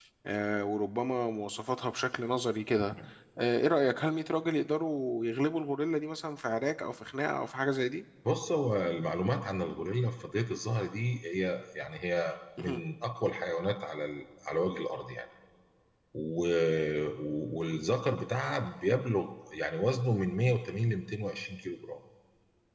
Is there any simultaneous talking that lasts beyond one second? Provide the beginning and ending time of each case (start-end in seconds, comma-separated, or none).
none